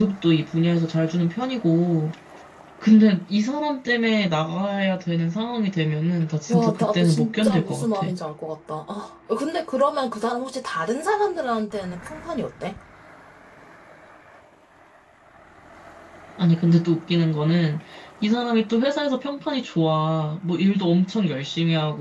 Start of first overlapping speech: 6.5 s

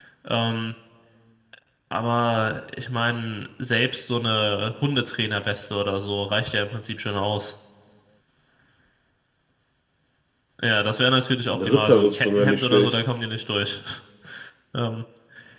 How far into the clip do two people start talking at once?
11.5 s

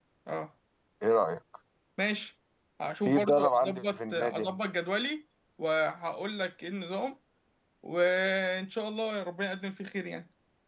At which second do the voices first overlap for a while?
3.0 s

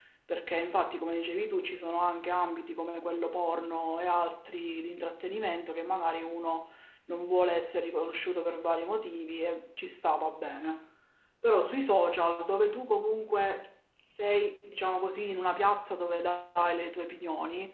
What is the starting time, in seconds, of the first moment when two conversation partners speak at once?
none

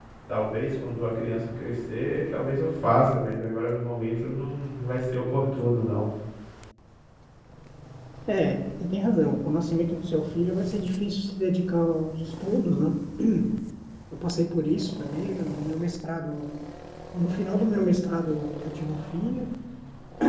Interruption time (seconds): none

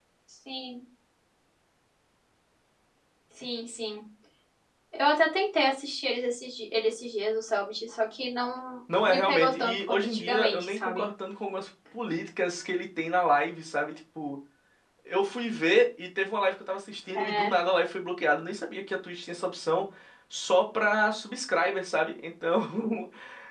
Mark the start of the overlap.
9.0 s

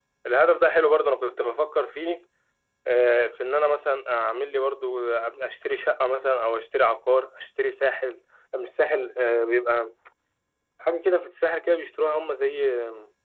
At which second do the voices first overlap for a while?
none

